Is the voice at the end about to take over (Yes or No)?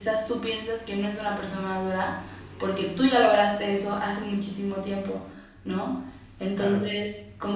No